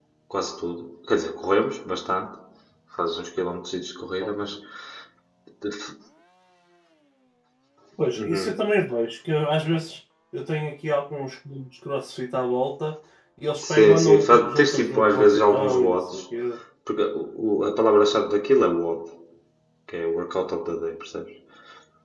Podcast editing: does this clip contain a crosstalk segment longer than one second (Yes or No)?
Yes